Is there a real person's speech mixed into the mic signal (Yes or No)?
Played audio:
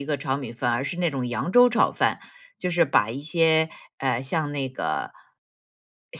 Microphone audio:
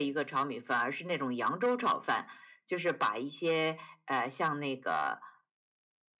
No